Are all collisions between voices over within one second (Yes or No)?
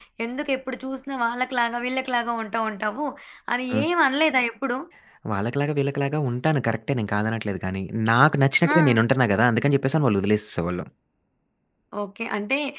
Yes